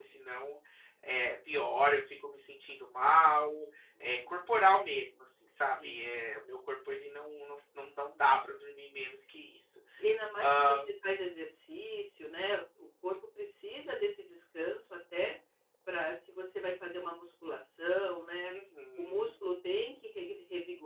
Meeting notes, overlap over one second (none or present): none